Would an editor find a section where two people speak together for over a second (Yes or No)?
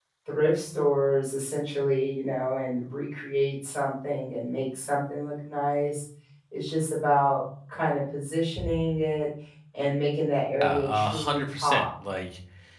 Yes